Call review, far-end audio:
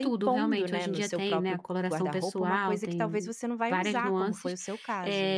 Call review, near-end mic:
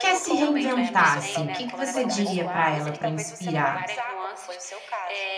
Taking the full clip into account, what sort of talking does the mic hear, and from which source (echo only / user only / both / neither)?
both